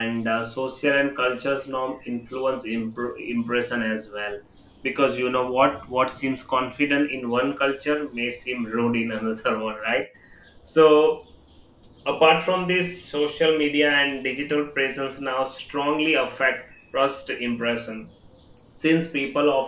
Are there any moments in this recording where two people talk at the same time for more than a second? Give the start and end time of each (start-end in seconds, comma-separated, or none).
none